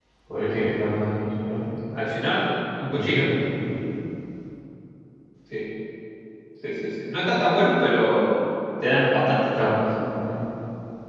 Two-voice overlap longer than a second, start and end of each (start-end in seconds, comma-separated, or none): none